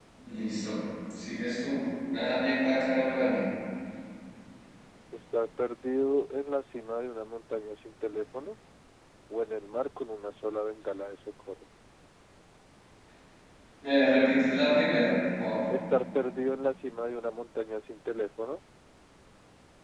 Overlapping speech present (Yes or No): No